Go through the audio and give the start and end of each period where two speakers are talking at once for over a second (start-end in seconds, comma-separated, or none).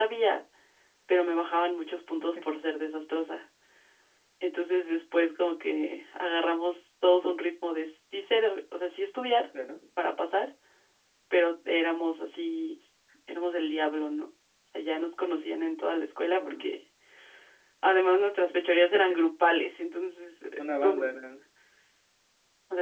none